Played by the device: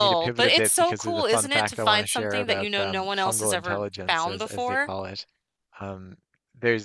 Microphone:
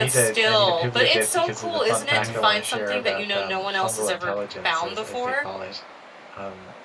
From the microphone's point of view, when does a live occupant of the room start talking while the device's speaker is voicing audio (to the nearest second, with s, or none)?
2 s